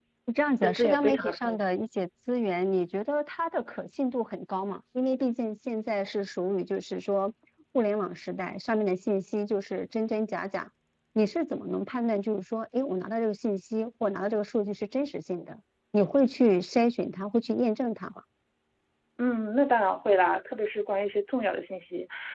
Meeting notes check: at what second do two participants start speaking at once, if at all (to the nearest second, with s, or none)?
1 s